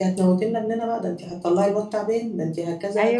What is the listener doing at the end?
taking over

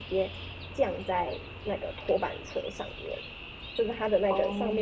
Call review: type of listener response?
listening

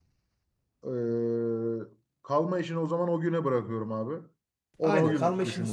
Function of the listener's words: taking over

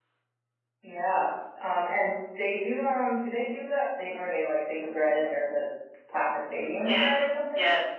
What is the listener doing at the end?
taking over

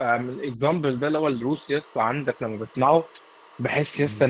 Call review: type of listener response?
listening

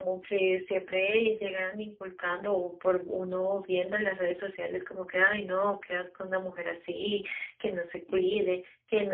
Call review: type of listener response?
listening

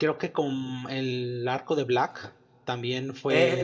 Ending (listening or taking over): taking over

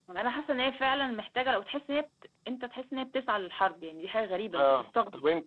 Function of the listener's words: taking over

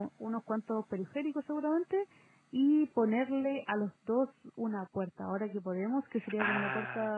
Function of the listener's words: listening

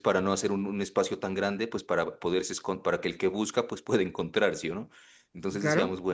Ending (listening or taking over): listening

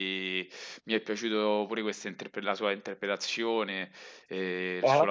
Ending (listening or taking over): listening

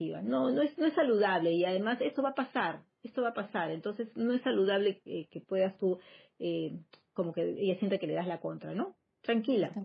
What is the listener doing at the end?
taking over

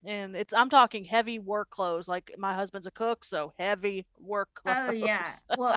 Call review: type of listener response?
taking over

